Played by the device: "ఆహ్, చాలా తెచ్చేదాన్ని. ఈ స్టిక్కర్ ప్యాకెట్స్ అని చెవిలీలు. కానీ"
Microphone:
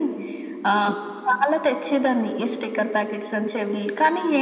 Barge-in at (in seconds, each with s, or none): none